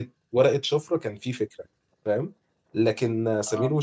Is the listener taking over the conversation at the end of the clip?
No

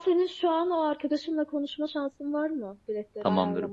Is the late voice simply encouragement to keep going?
No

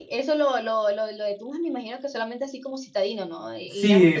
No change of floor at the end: No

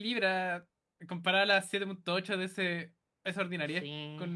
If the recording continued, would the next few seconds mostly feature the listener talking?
Yes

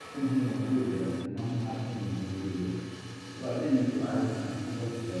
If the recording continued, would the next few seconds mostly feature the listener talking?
No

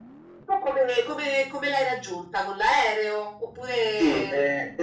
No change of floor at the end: No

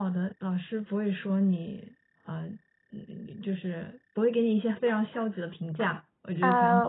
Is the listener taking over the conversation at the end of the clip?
Yes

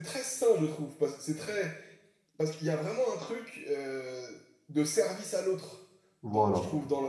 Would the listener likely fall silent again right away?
Yes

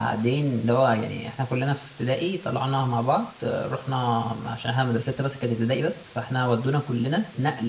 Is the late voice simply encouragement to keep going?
Yes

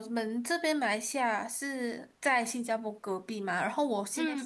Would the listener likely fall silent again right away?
Yes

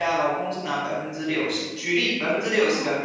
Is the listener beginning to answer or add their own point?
No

